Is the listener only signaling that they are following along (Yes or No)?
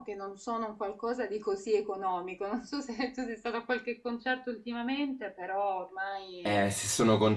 No